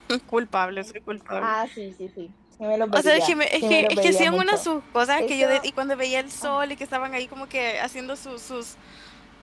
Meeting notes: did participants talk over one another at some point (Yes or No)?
Yes